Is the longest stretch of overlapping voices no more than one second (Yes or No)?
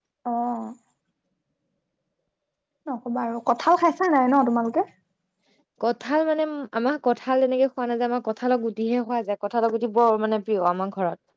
Yes